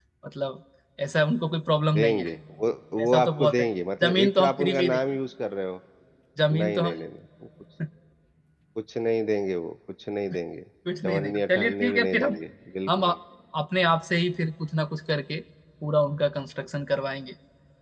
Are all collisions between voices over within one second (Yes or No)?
No